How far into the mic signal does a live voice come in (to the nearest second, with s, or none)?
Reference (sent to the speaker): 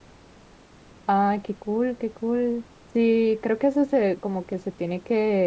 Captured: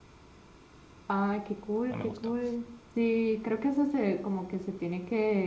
2 s